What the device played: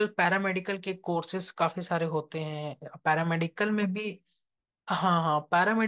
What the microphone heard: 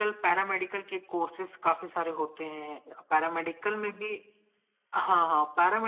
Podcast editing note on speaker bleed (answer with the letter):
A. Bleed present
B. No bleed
A